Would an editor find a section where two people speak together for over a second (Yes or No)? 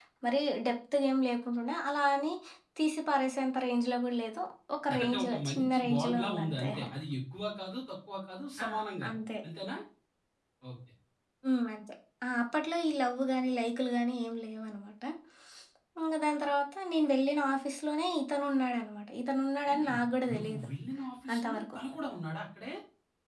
Yes